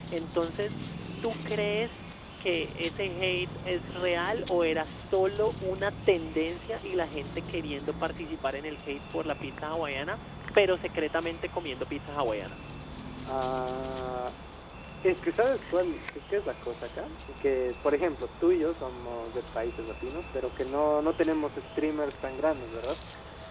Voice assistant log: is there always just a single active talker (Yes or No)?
Yes